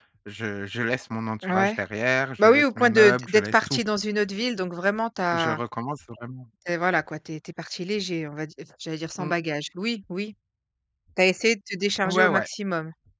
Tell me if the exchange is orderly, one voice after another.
No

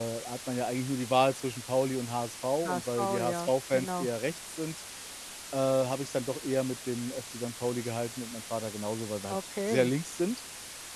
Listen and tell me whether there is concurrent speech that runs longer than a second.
Yes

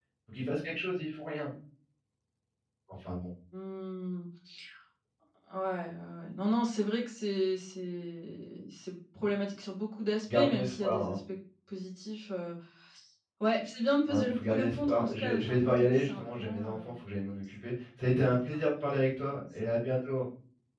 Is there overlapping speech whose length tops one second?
Yes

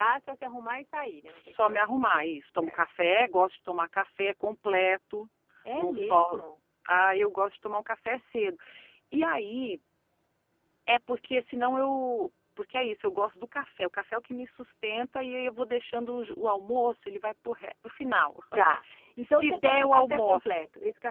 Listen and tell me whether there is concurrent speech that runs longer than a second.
Yes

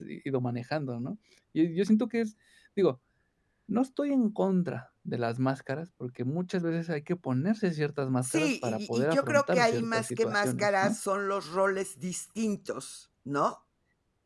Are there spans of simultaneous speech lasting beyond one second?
Yes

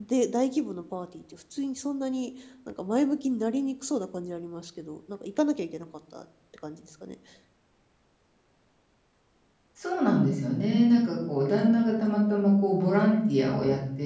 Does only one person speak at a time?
Yes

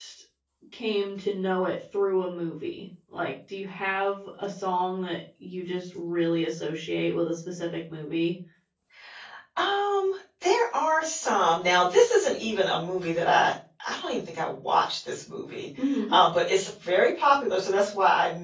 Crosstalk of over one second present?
No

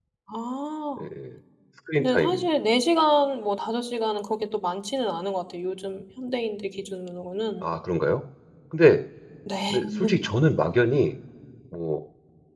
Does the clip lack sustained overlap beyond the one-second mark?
Yes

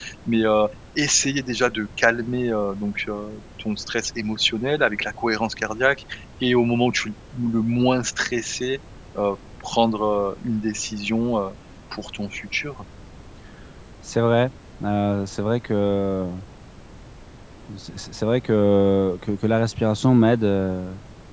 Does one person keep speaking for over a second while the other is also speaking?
No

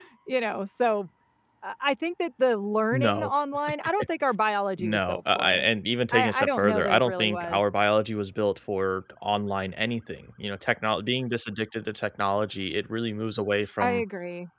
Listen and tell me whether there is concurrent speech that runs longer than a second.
Yes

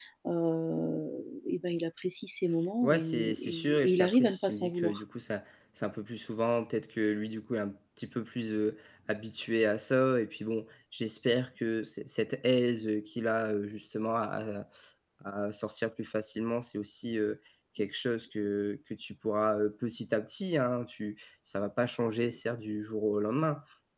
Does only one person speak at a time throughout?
No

